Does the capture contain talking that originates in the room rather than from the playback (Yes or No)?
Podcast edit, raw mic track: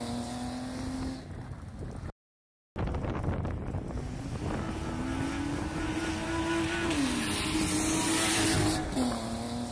No